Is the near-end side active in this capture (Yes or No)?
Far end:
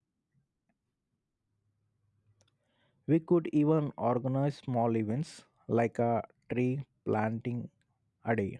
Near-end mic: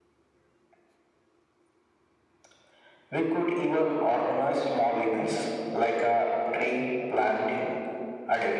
No